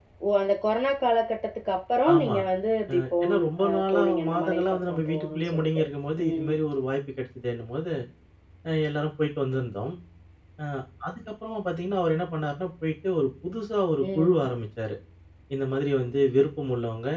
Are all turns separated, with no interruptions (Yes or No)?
No